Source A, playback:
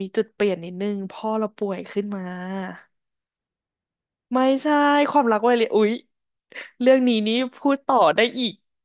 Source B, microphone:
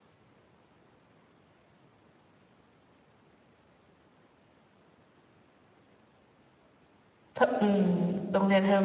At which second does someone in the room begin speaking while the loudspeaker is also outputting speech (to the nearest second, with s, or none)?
7 s